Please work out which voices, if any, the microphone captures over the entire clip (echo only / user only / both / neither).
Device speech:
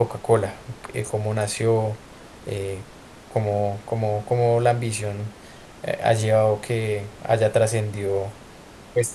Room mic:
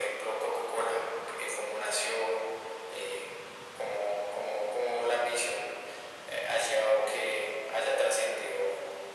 echo only